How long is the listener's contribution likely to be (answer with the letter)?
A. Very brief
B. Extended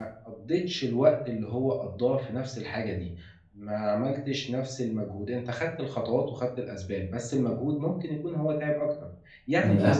A